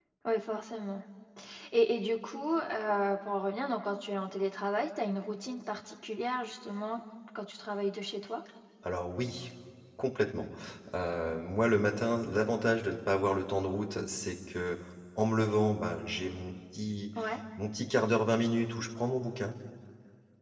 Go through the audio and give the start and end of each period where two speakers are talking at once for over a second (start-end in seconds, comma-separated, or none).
none